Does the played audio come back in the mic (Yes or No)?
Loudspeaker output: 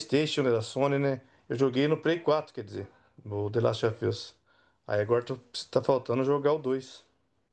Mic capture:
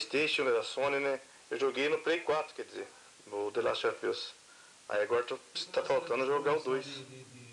Yes